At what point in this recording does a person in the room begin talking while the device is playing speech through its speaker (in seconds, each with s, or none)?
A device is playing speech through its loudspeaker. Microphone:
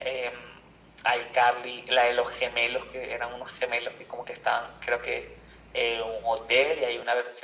none